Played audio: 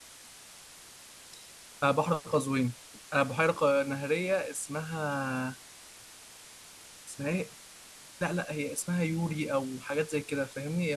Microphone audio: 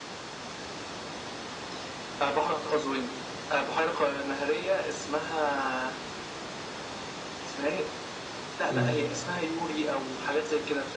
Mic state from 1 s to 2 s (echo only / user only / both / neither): neither